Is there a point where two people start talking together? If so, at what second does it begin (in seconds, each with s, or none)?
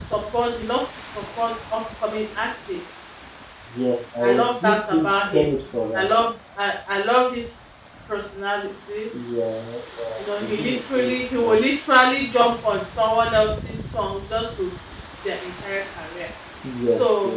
4.2 s